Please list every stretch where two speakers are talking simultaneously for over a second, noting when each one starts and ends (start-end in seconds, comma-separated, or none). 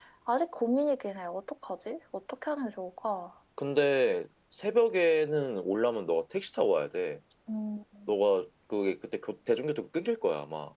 none